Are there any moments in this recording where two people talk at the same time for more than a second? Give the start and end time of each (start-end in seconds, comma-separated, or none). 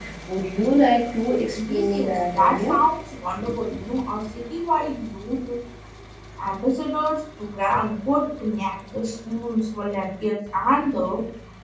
1.5-2.8